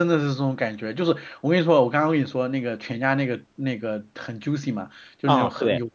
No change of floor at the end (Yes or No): Yes